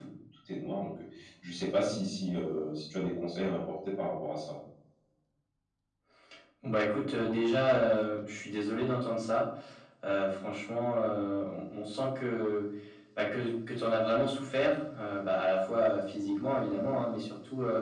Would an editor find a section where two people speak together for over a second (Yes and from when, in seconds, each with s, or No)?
No